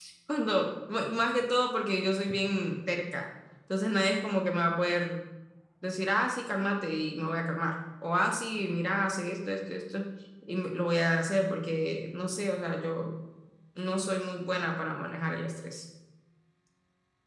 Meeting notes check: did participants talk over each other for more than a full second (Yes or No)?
No